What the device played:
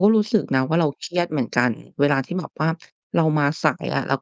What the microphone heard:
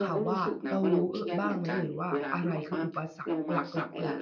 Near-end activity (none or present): present